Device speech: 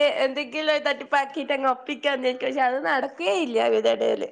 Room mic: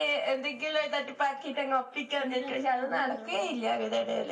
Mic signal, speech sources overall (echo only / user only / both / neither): both